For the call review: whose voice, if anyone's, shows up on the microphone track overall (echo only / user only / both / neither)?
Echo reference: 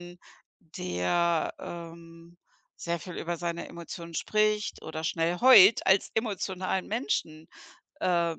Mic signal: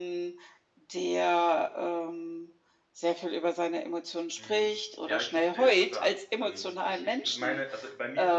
both